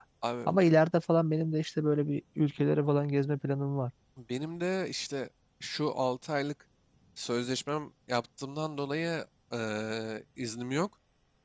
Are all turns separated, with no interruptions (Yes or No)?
Yes